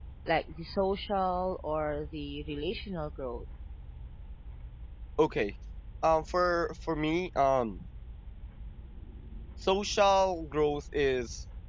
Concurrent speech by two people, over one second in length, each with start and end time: none

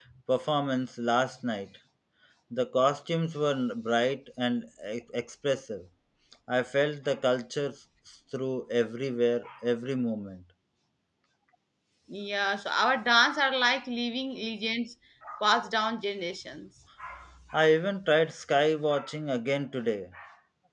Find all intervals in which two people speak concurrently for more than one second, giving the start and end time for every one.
none

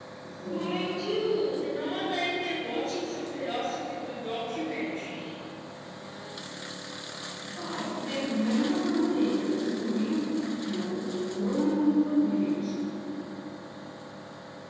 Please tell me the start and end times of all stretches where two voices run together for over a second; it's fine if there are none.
none

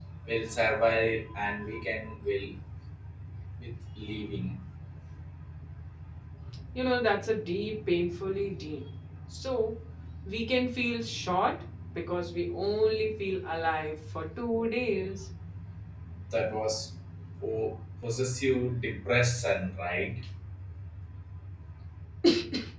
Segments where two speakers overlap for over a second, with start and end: none

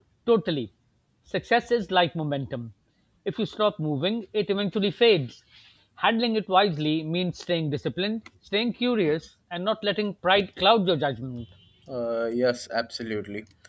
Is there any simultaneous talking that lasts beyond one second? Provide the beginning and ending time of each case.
none

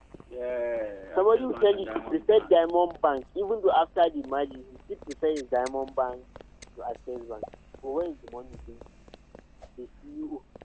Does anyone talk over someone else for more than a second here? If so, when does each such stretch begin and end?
1.2-2.5

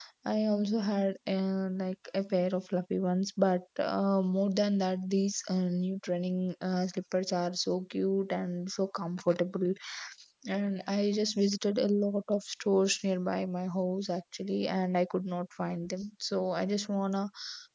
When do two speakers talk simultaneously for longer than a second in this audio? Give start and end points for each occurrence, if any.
none

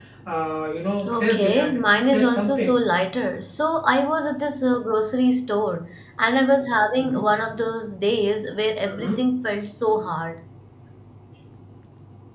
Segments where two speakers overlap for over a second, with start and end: 1.1-2.8

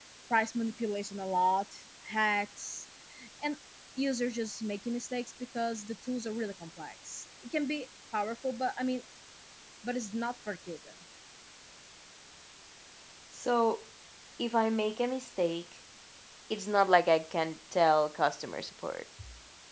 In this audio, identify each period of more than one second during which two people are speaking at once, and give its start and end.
none

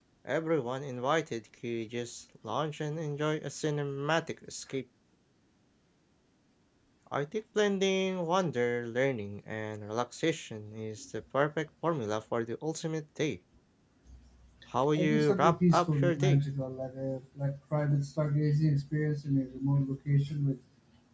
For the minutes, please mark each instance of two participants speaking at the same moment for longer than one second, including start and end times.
15.0-16.4

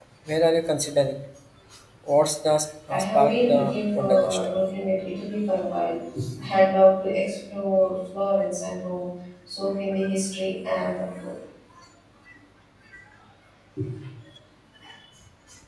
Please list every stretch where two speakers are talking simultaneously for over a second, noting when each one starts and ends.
2.9-4.4

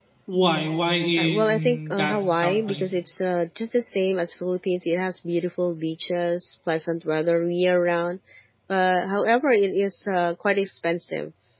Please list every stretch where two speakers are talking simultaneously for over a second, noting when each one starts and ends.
1.2-2.8

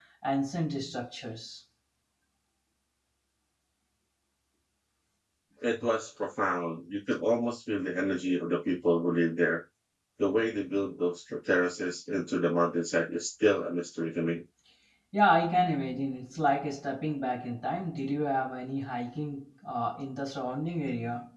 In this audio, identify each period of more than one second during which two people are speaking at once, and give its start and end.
none

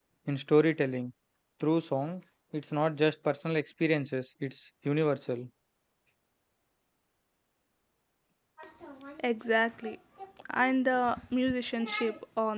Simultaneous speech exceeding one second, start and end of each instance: none

